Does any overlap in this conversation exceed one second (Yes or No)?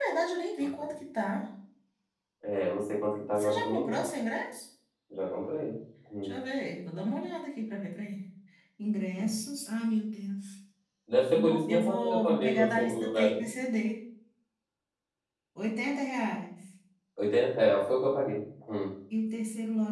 Yes